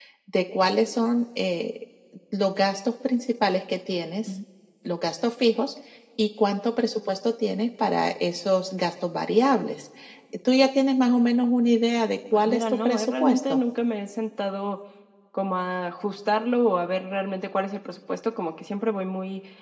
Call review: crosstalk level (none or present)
present